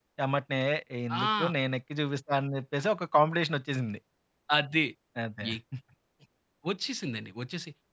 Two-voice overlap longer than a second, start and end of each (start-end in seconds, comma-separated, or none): none